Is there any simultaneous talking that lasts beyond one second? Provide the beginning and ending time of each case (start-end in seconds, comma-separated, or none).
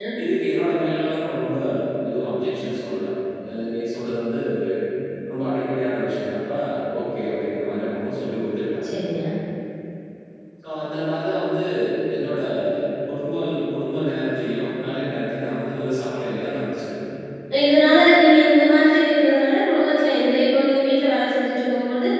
none